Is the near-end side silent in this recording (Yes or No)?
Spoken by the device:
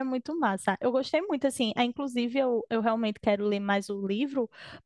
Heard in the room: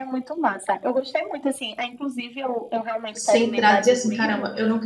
No